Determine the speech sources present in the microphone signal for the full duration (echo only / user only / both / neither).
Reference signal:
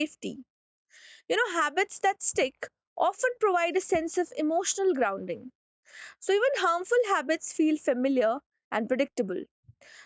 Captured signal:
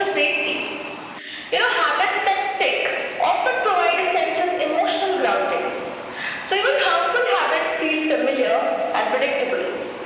echo only